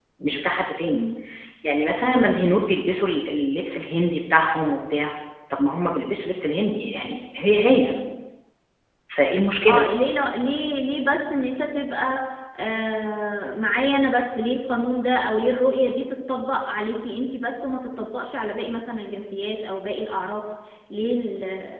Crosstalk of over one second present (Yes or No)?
No